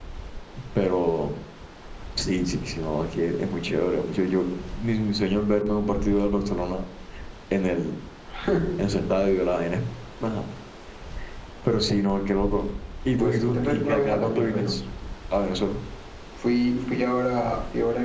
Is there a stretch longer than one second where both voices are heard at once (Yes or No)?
Yes